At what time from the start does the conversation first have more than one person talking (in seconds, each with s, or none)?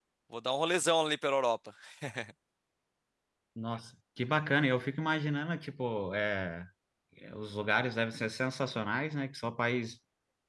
none